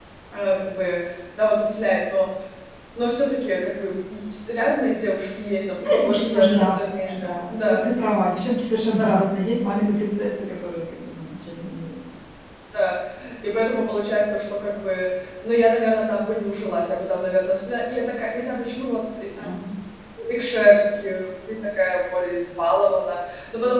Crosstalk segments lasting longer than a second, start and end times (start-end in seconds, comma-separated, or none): 5.8-7.8